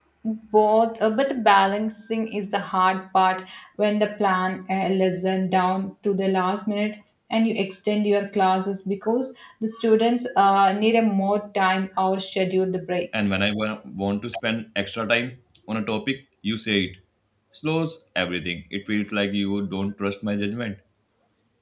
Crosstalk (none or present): none